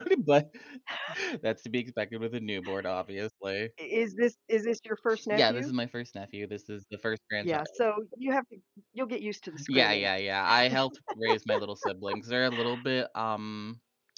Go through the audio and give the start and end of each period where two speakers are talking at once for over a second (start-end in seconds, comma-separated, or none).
none